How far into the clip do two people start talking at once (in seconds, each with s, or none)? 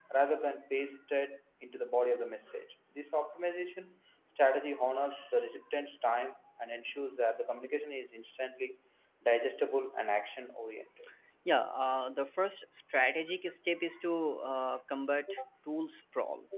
none